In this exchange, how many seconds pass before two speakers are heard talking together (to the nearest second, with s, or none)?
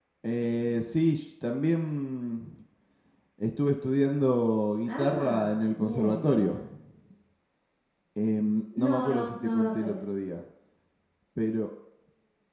5 s